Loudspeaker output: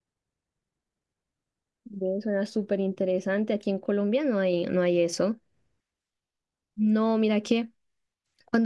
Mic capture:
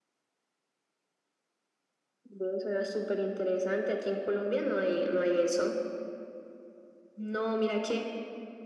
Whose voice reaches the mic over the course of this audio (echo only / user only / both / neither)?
echo only